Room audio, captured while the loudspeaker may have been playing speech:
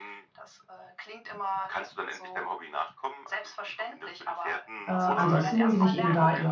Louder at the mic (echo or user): user